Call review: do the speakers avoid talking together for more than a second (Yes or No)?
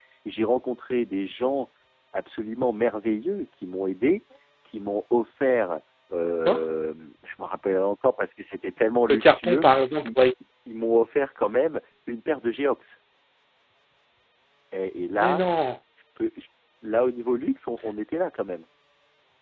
Yes